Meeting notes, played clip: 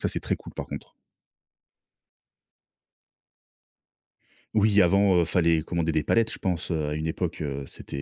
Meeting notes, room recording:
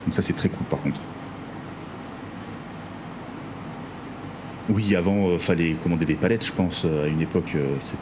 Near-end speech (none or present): none